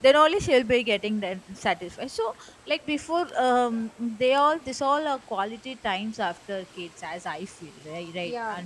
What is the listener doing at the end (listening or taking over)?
taking over